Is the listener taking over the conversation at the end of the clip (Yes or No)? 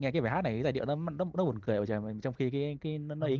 Yes